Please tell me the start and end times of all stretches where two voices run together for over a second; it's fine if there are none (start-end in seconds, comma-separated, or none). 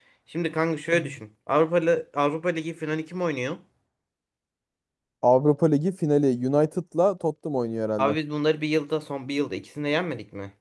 none